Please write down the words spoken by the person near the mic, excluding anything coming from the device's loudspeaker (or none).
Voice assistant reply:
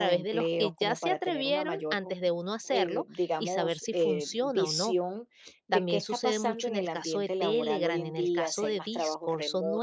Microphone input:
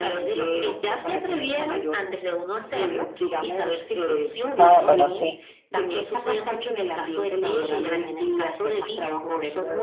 Ah, bueno, sí,